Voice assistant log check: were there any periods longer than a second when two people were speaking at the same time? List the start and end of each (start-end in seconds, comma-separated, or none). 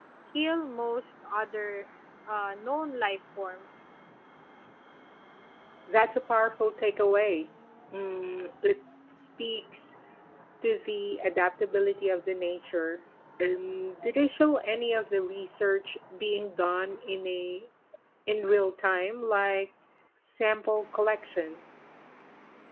none